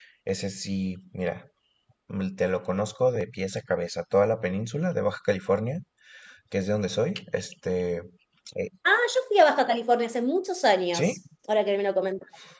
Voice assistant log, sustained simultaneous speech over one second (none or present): none